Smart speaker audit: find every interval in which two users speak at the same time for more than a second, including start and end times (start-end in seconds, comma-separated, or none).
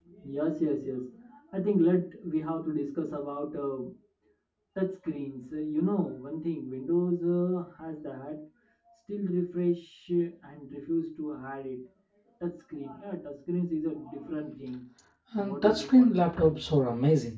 15.4-16.6